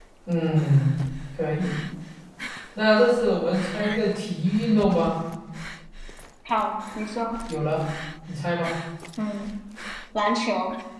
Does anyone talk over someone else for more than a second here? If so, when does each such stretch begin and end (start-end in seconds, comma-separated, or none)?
none